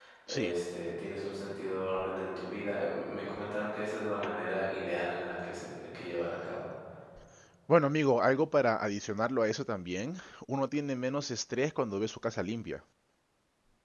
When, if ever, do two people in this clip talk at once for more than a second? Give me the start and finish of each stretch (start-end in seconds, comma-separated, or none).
none